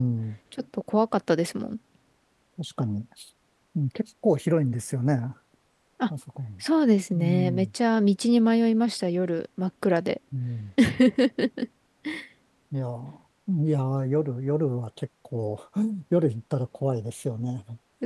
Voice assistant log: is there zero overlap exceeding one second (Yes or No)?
Yes